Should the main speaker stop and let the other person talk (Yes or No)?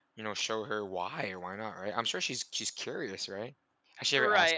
Yes